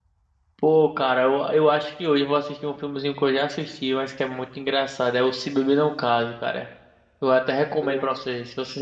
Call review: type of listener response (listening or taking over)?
listening